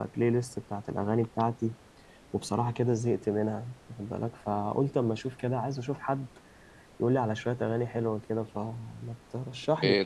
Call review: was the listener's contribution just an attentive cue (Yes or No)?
No